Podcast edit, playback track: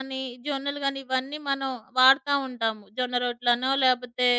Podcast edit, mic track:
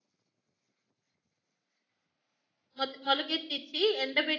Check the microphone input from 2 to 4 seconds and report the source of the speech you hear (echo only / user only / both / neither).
user only